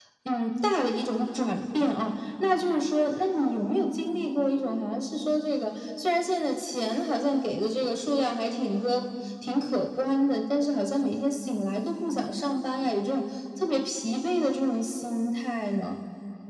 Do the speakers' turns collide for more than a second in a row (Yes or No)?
No